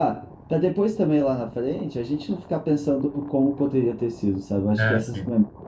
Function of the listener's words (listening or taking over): listening